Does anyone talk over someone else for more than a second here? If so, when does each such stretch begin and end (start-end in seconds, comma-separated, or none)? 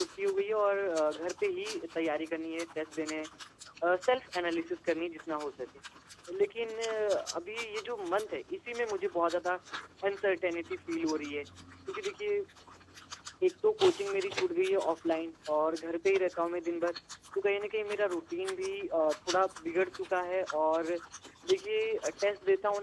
none